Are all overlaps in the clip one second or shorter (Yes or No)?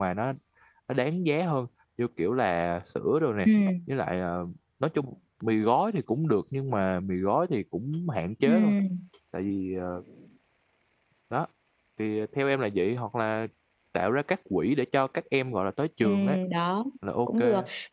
Yes